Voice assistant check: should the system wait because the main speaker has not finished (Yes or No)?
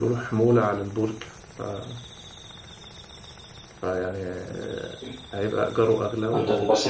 No